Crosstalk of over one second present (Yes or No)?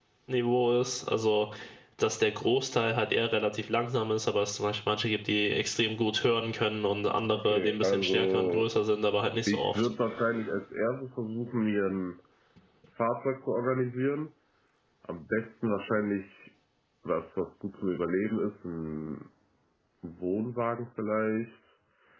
Yes